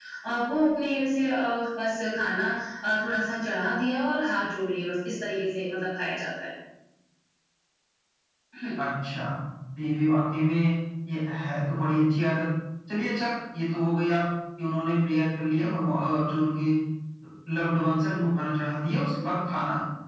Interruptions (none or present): none